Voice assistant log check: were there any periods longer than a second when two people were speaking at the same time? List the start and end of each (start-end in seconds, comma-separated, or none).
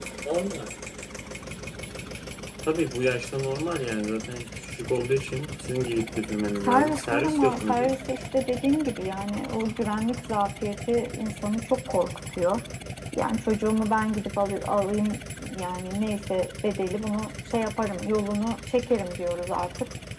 6.6-7.9